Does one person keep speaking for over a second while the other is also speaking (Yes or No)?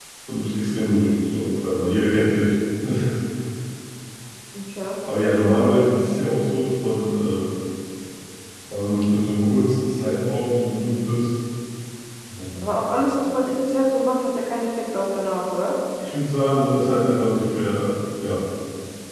No